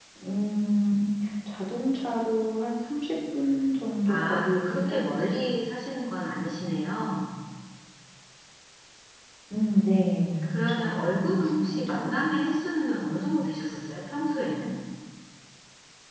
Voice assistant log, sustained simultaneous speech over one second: present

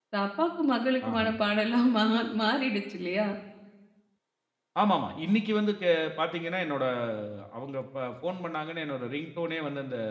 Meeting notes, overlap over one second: none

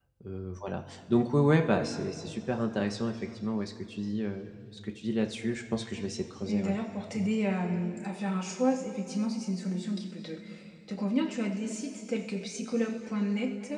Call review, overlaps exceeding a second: none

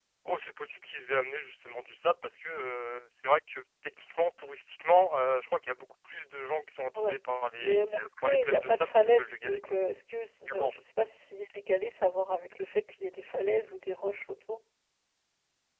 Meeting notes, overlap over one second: present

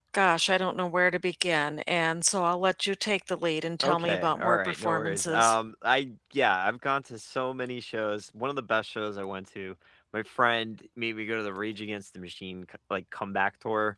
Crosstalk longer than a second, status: present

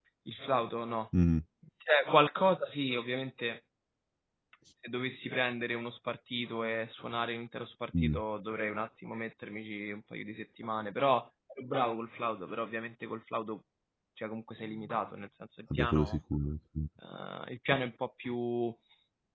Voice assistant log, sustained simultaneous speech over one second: none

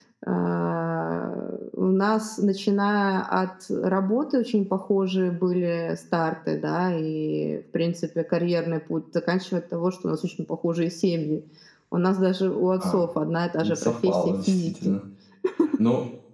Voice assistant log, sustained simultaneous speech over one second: present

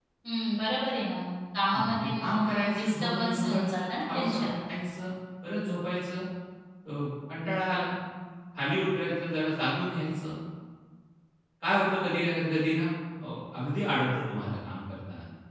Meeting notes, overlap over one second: present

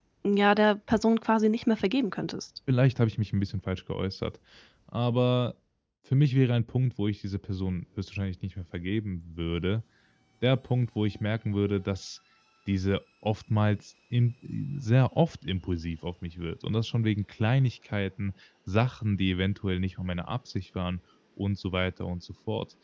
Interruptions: none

